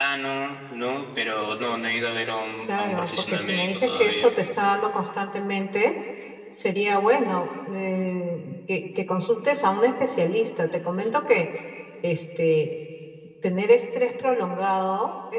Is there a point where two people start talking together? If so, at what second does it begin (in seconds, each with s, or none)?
2.7 s